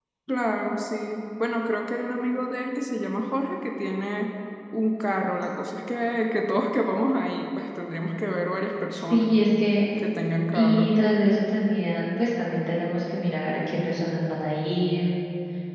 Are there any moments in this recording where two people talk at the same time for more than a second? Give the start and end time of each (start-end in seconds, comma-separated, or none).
none